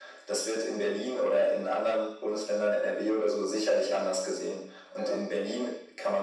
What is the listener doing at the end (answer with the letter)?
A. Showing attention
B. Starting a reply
A